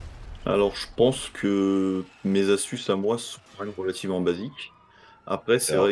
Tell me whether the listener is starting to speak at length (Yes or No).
No